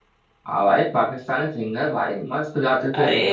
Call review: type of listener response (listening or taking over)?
taking over